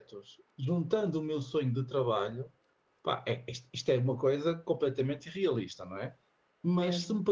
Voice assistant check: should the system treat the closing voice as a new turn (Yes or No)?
No